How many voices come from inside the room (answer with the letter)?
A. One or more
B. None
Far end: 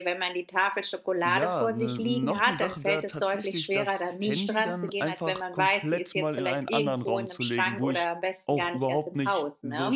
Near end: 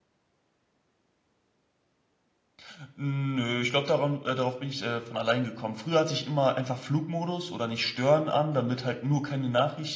A